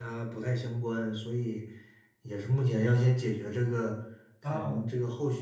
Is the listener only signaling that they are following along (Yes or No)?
Yes